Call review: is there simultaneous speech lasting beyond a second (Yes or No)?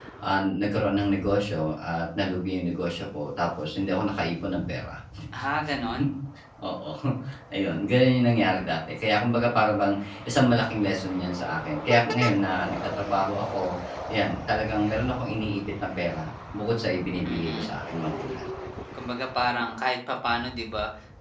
No